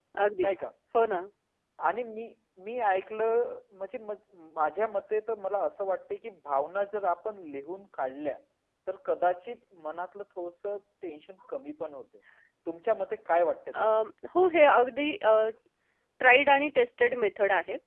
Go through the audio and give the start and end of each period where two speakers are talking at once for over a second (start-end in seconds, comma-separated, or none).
none